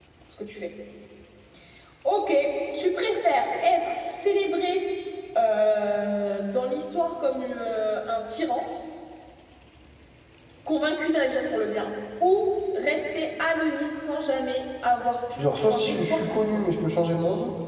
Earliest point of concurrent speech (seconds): 15.4 s

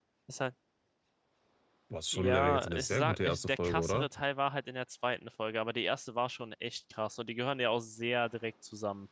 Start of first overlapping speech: 2.1 s

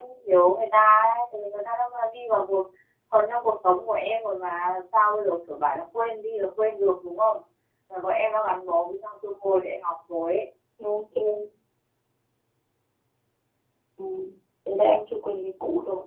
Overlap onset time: none

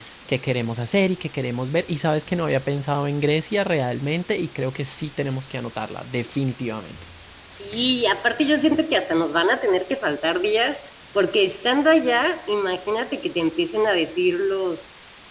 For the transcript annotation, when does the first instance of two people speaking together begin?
none

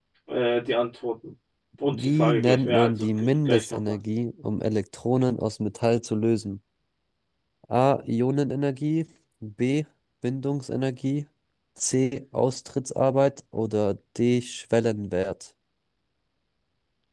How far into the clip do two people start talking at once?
1.9 s

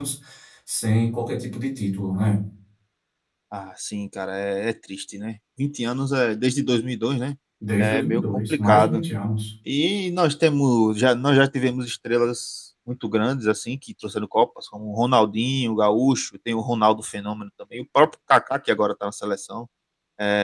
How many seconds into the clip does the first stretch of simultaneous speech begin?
7.8 s

